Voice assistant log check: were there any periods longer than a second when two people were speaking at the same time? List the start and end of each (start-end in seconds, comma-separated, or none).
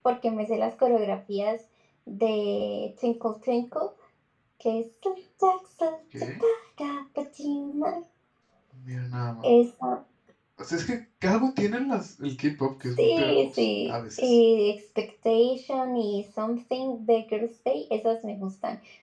13.0-14.4